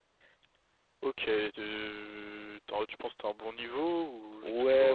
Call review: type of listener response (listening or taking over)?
taking over